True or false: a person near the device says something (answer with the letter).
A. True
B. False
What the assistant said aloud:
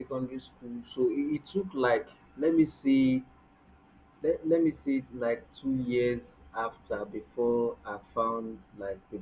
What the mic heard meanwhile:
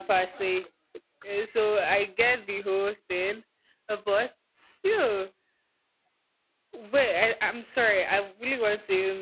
A